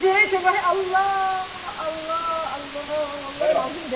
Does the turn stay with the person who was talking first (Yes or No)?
Yes